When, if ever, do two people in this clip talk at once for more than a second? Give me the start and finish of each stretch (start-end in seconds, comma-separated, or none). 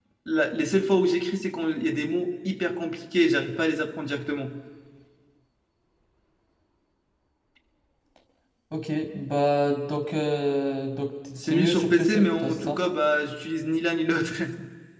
11.4-12.8